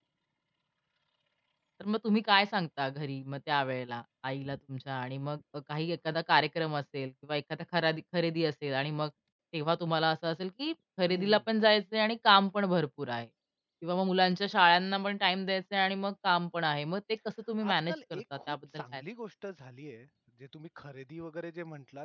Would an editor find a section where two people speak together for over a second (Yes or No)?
Yes